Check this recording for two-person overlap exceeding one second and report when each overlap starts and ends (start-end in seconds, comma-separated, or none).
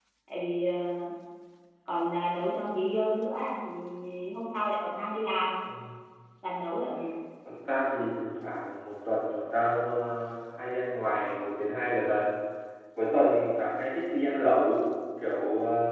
none